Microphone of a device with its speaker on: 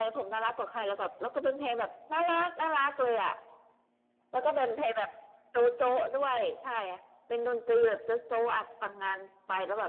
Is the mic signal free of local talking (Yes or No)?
Yes